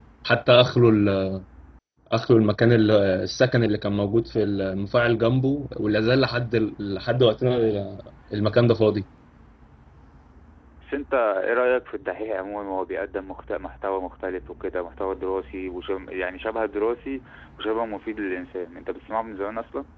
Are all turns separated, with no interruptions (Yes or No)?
Yes